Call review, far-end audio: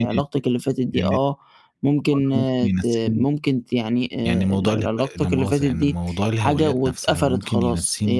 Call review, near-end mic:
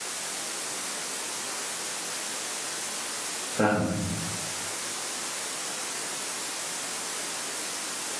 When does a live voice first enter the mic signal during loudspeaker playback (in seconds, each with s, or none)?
3.5 s